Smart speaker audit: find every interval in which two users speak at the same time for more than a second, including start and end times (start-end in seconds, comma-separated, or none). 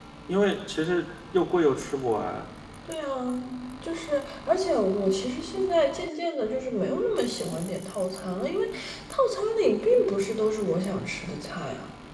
none